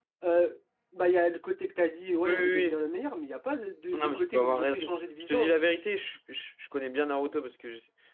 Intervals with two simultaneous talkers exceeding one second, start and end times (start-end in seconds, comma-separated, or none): 3.9-5.6